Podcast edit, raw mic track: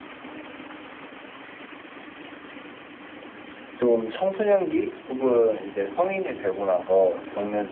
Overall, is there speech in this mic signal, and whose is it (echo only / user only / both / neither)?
user only